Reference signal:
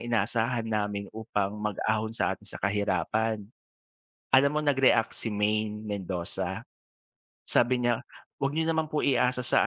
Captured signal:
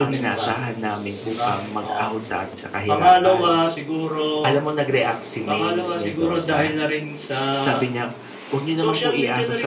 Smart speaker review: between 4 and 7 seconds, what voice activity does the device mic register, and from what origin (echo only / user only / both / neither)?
both